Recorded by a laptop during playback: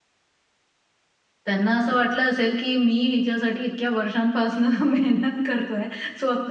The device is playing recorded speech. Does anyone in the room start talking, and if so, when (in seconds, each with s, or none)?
1.4 s